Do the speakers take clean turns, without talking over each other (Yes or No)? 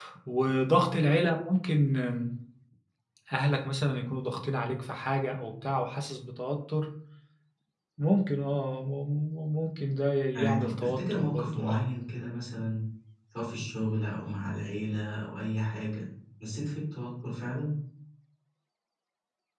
No